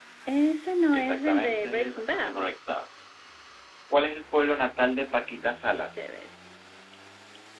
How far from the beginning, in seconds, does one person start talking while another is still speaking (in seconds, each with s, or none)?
0.9 s